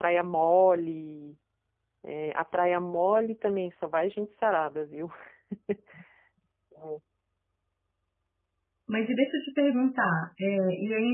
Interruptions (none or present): none